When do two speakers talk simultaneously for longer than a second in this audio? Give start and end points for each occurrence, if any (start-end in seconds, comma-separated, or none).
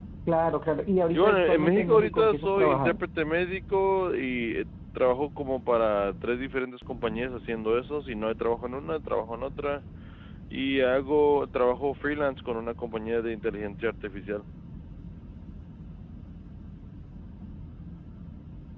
1.1-3.0